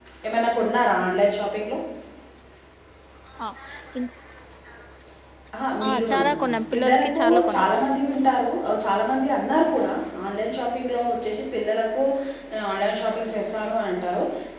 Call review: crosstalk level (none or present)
present